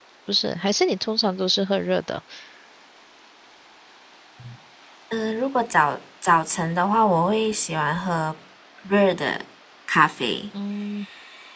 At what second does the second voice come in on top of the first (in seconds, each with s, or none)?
none